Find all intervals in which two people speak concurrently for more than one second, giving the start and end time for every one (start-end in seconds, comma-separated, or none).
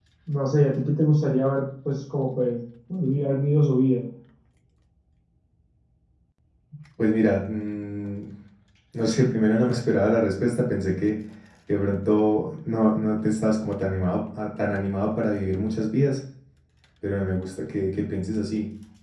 none